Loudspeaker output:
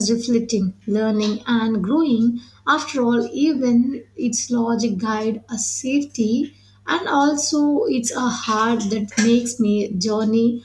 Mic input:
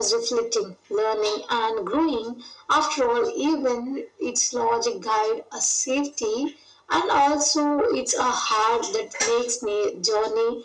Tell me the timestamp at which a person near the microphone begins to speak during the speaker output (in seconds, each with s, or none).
none